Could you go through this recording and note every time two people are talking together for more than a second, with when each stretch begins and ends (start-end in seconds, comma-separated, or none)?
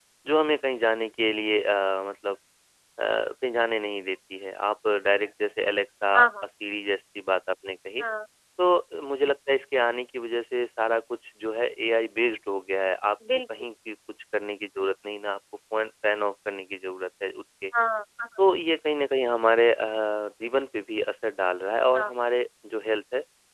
none